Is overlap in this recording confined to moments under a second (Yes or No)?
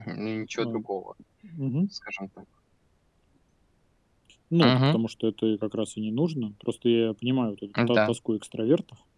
Yes